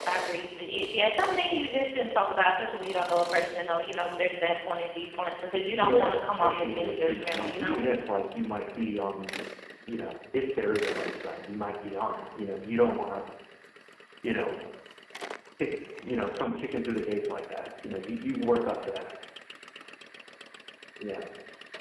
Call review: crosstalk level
present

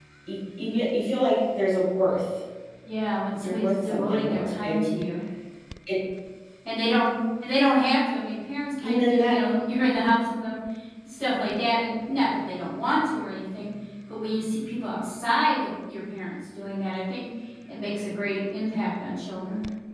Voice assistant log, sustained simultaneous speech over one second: present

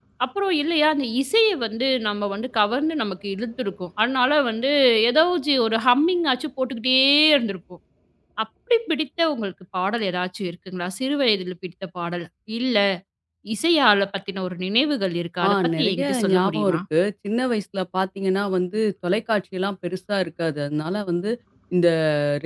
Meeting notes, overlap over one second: present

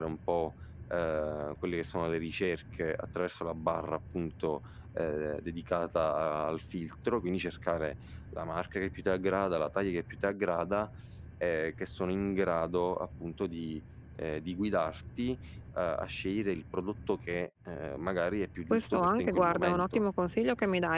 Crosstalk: present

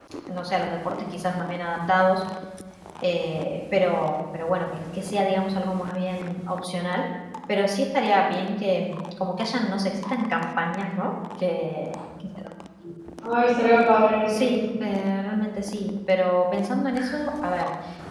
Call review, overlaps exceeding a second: none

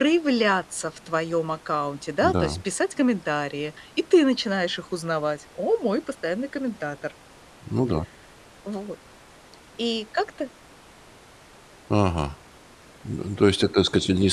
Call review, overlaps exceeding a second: none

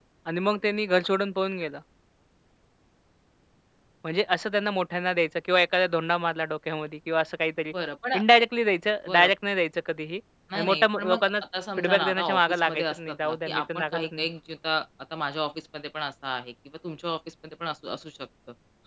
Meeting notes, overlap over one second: present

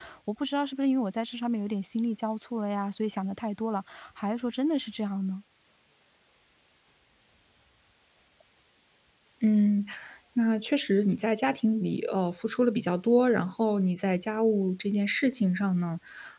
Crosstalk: none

